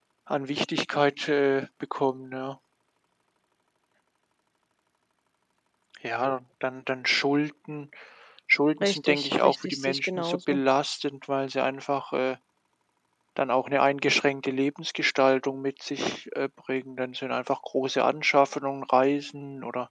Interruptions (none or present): present